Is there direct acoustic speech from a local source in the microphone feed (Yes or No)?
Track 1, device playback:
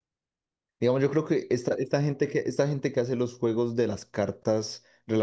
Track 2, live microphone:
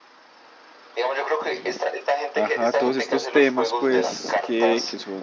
Yes